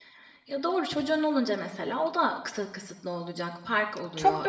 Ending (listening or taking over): taking over